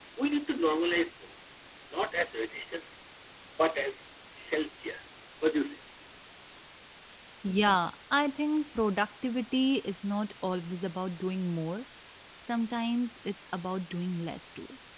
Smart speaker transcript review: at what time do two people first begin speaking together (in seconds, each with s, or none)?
none